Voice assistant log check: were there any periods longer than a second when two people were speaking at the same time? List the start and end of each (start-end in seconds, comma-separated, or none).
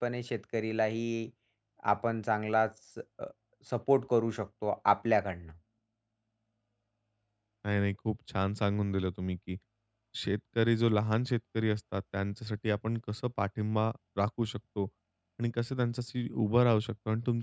none